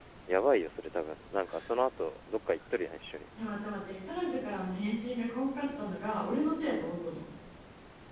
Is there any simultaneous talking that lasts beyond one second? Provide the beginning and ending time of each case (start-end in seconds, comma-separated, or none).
none